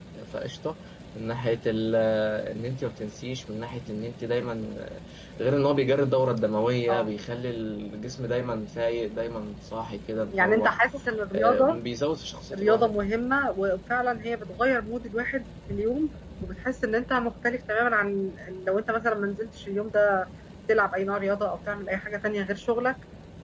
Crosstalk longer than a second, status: none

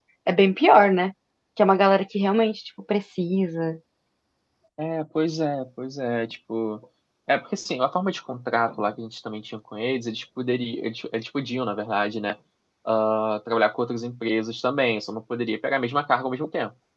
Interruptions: none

